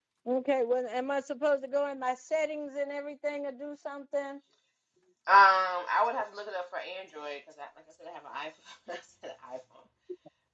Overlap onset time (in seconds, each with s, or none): none